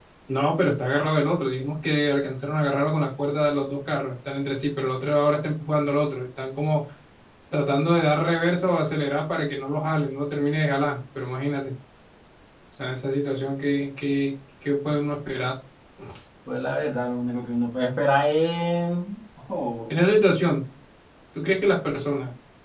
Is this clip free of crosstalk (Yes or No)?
Yes